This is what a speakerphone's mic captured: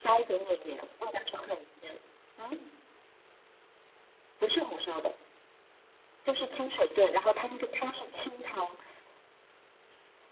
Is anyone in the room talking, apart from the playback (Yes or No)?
No